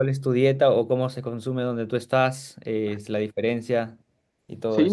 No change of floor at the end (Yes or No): No